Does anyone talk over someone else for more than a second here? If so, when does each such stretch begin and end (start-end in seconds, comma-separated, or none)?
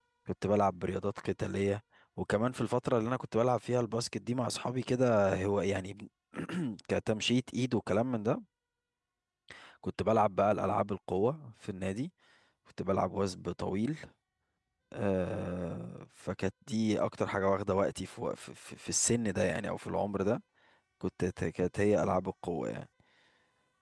none